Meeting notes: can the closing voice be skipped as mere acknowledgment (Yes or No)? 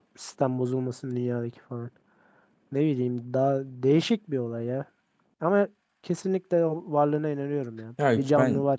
No